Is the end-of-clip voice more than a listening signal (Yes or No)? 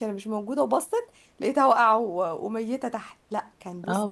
Yes